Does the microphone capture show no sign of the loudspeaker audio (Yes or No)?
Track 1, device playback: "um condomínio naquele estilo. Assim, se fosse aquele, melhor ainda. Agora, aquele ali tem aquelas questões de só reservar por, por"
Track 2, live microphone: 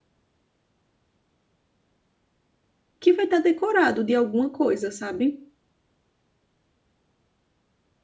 Yes